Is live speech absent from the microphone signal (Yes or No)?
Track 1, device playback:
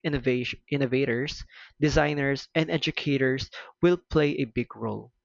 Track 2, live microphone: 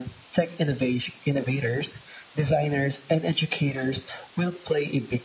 Yes